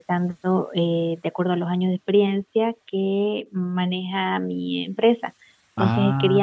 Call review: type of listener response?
listening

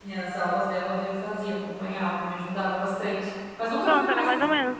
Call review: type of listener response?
taking over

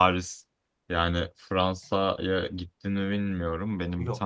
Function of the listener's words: listening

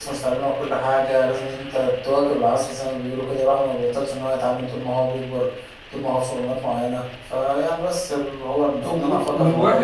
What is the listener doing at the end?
taking over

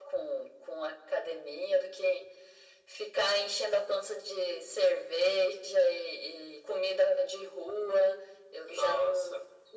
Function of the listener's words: listening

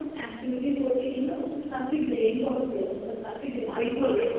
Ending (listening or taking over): taking over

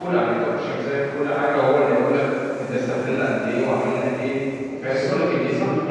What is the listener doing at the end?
taking over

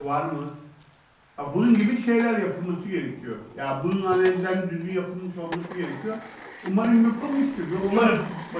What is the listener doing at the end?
listening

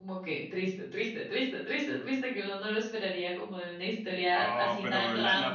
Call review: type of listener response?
taking over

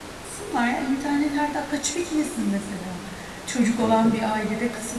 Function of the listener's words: listening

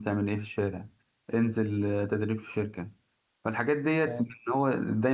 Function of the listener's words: listening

